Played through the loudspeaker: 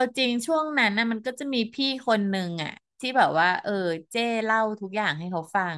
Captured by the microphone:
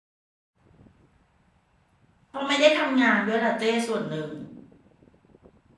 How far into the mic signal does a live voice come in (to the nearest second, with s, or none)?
2 s